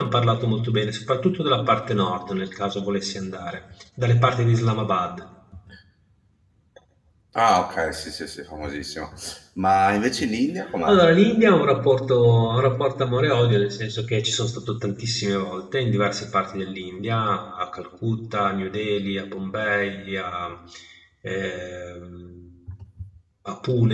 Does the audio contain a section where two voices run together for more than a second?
No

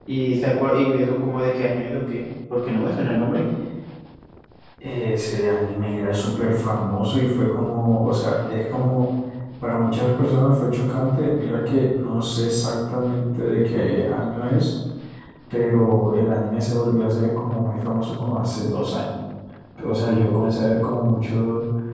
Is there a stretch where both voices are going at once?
No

